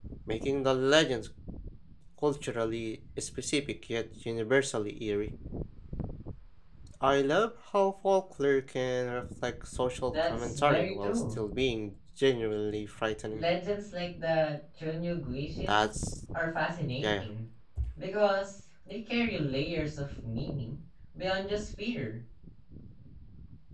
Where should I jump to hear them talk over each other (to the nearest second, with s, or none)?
10 s